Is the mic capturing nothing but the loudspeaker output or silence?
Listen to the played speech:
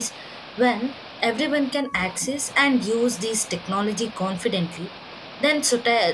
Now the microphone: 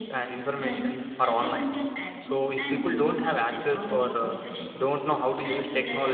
No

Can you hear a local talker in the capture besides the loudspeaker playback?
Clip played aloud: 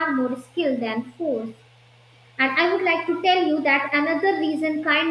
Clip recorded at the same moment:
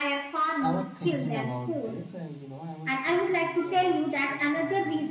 Yes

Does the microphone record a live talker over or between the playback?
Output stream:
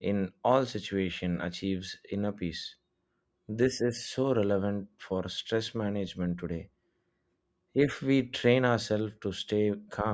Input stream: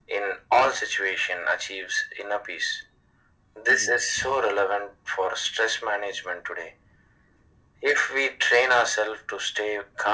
Yes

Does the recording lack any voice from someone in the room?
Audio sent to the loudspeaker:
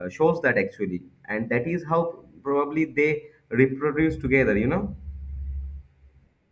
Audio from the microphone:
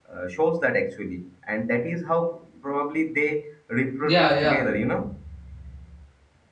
No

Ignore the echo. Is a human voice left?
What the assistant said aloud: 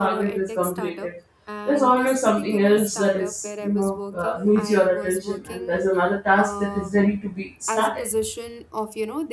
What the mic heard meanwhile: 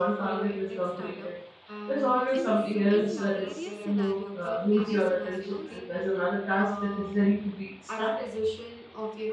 Yes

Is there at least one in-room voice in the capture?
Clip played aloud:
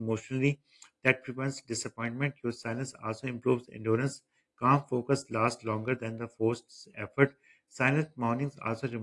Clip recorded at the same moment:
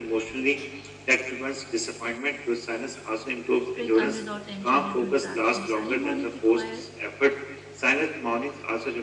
Yes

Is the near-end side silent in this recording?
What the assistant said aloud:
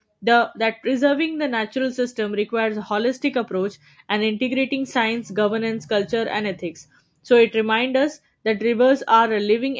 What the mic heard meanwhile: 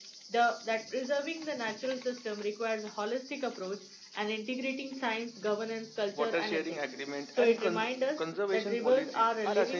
No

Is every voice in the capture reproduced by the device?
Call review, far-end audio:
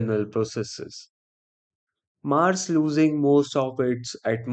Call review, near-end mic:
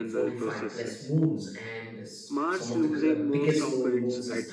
No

